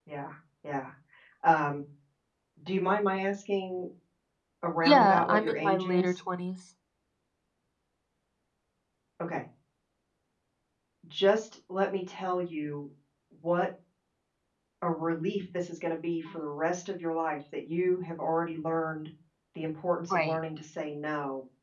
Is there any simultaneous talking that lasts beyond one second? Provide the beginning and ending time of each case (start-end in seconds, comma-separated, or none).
4.8-6.2